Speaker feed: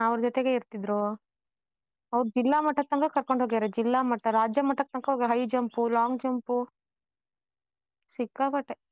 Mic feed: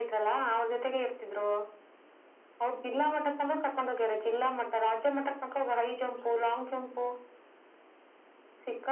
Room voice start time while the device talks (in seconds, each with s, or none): none